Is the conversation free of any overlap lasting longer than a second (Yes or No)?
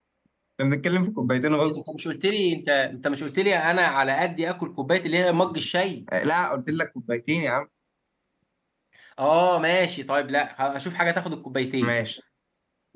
Yes